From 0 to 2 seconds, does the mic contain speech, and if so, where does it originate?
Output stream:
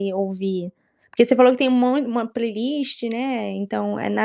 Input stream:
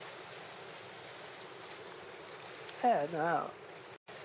neither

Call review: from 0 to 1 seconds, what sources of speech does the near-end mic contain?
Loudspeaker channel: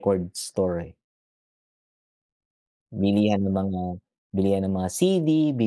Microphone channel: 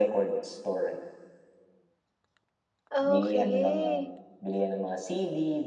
echo only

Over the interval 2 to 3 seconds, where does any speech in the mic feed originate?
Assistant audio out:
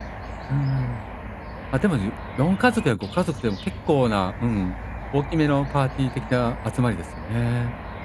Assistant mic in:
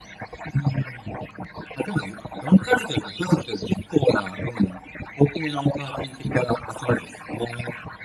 echo only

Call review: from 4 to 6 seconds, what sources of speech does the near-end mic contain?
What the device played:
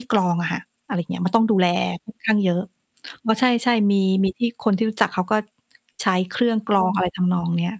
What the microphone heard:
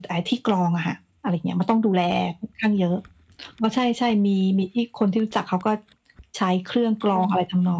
echo only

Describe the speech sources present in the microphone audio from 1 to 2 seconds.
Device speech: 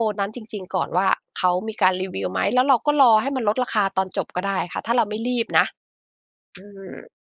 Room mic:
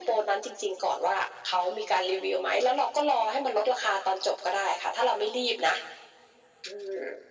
echo only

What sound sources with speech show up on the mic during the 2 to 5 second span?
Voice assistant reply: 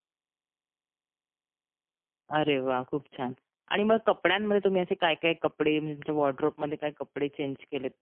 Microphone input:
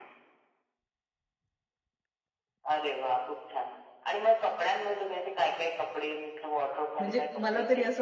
echo only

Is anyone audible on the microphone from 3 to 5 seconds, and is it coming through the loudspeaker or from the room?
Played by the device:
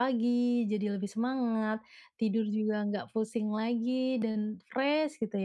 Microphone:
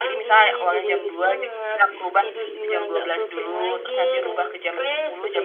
both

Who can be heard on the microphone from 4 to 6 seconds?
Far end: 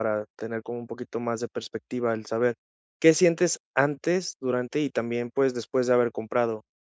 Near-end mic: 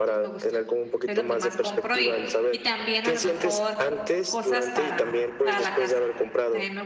both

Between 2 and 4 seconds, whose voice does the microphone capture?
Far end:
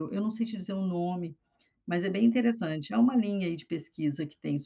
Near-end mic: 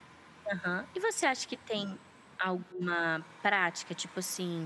user only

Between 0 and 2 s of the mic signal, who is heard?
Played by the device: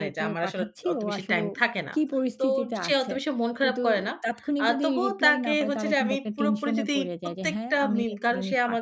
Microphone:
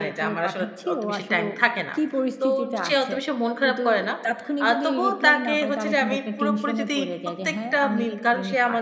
echo only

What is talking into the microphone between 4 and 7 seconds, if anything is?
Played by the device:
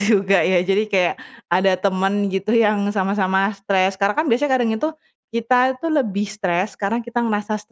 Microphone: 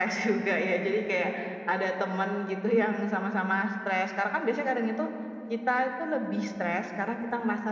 echo only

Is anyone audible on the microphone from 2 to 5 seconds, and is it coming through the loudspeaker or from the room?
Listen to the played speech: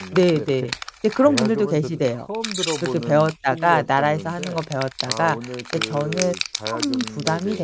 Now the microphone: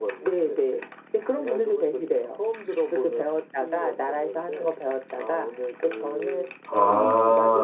echo only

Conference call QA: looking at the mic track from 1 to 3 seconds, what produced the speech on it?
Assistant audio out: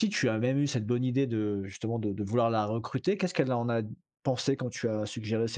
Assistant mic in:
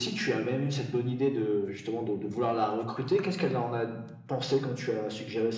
echo only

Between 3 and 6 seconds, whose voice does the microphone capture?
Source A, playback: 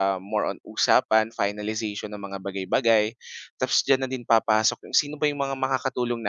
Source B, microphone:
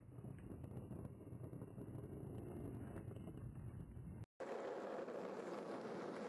neither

